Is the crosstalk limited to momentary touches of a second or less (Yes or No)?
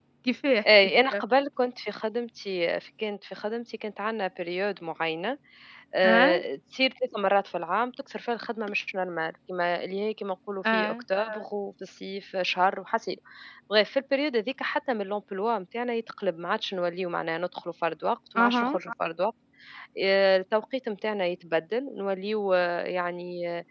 Yes